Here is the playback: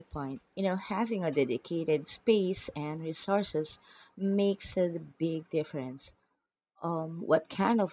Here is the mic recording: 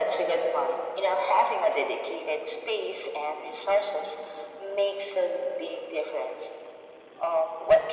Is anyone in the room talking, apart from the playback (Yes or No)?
No